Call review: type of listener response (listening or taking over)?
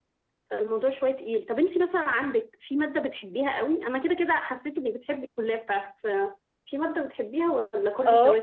taking over